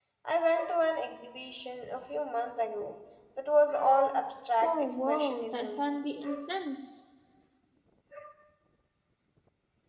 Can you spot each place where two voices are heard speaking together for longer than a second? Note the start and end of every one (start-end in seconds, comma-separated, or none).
4.6-5.8